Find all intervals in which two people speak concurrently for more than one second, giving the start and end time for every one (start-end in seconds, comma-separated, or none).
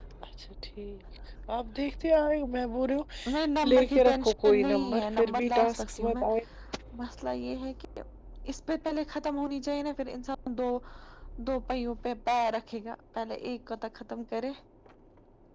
3.3-6.2